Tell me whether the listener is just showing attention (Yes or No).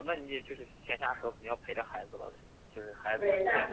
No